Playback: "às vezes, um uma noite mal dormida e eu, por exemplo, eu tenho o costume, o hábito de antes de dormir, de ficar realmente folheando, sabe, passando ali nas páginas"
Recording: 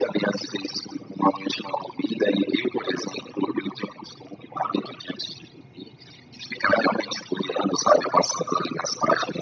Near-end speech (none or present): none